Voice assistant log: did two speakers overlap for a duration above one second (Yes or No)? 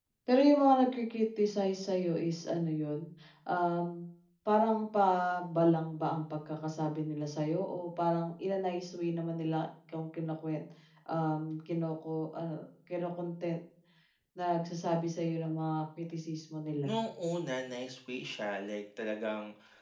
No